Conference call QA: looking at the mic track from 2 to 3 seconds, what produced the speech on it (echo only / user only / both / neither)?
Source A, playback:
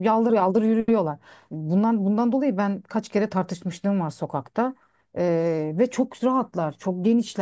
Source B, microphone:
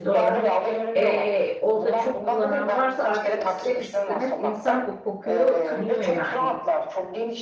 both